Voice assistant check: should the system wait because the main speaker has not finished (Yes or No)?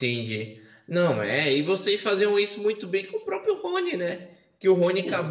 Yes